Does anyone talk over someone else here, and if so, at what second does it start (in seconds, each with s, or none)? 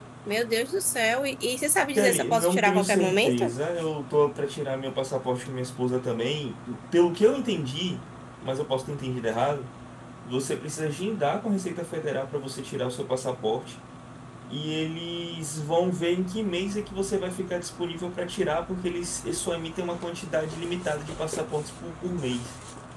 2.0 s